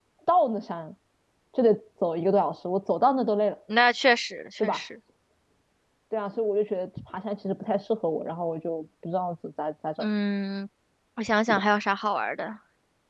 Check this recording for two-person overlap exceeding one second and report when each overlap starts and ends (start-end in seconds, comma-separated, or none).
none